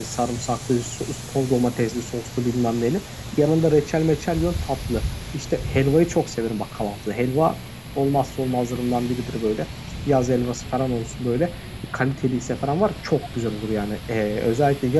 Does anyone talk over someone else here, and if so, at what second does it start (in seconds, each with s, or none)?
none